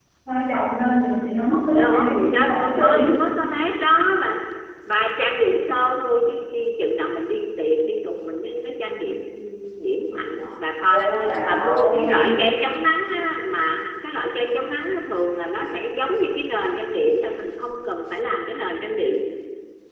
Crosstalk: present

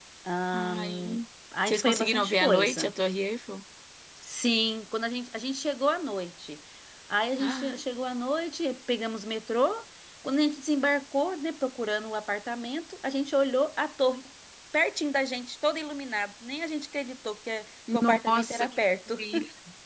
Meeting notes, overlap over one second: present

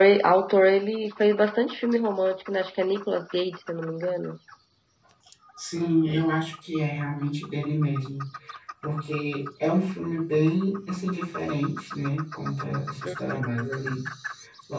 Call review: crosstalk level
none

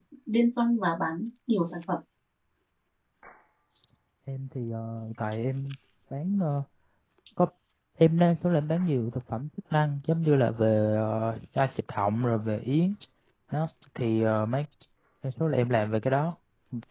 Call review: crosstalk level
none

